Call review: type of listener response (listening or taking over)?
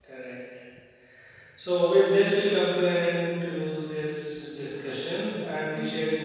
listening